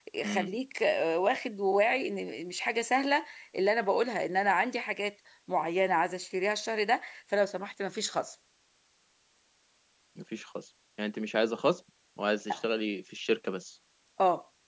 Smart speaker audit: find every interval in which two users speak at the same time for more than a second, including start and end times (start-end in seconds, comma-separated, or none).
none